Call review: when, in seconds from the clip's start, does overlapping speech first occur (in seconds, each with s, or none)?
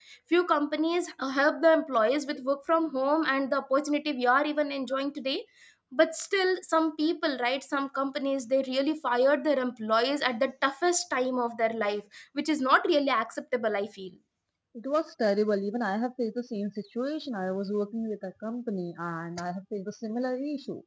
none